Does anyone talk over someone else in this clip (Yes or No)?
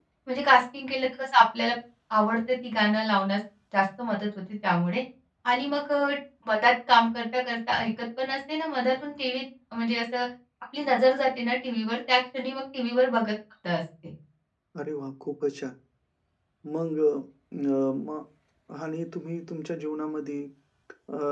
No